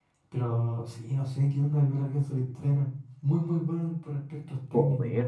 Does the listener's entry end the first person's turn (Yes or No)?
Yes